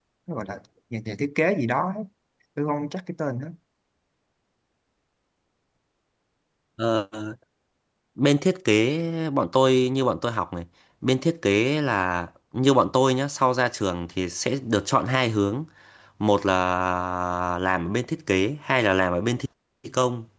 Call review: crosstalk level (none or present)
none